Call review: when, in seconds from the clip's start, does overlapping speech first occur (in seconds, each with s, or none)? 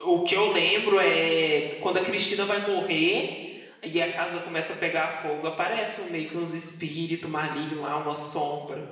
none